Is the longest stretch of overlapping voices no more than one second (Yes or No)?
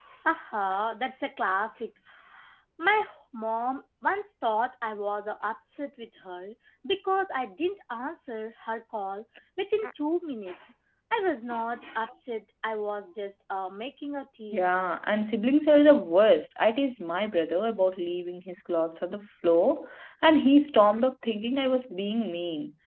Yes